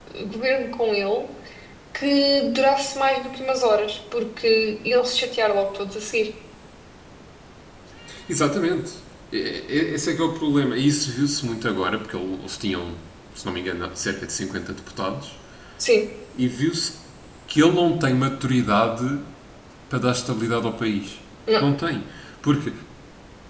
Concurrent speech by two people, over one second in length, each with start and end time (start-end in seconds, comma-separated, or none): none